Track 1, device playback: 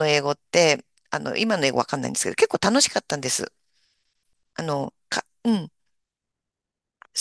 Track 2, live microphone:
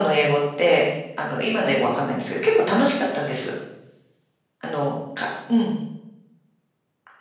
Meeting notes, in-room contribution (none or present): none